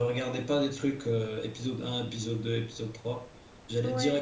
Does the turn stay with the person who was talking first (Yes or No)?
Yes